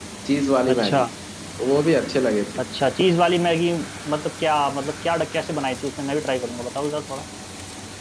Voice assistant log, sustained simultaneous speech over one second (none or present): none